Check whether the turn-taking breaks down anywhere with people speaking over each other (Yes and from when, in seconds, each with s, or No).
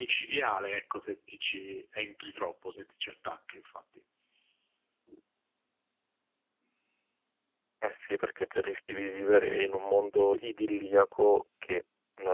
No